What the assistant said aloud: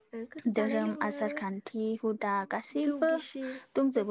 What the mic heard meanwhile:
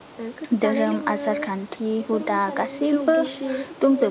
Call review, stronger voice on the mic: echo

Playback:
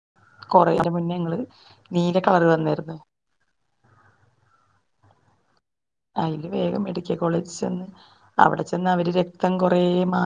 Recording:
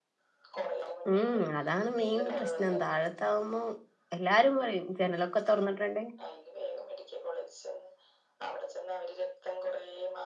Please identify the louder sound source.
user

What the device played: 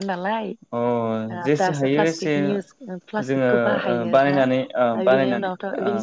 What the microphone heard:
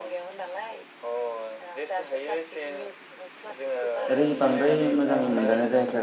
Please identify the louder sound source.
user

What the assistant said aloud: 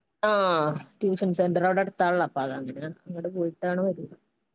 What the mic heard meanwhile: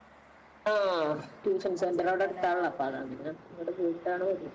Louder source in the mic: echo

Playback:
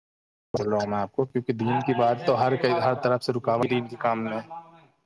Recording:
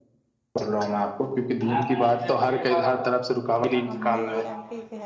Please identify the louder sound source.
echo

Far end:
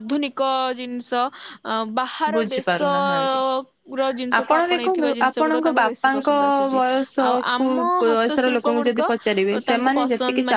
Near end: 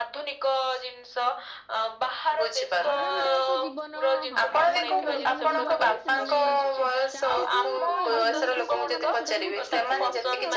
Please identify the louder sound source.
echo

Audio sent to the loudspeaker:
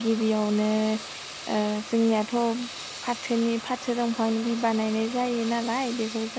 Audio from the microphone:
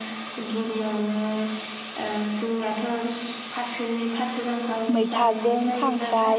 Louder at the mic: user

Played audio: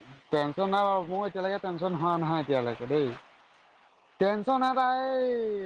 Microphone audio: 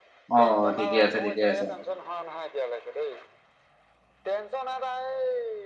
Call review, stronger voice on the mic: user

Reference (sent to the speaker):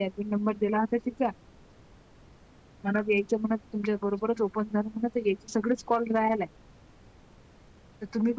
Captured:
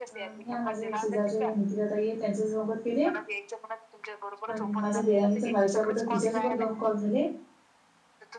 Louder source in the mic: user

